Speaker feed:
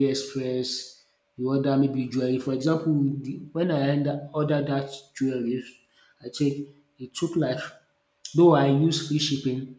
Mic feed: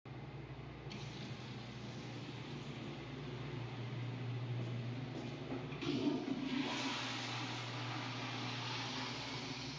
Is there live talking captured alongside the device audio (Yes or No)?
No